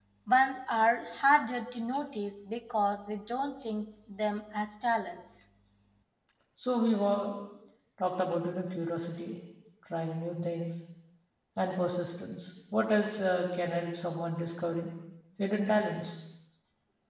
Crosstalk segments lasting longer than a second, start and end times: none

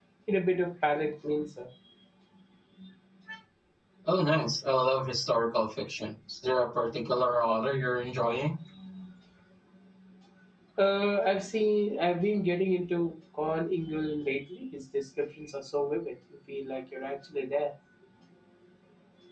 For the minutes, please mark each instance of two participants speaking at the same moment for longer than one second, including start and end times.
none

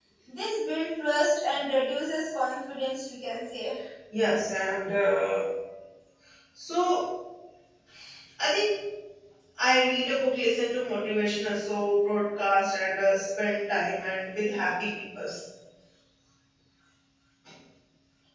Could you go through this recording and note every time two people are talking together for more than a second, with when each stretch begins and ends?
none

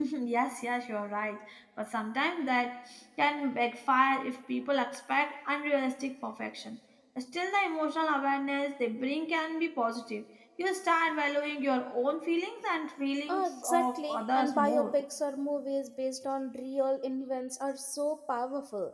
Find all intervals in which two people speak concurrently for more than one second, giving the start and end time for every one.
13.3-14.9

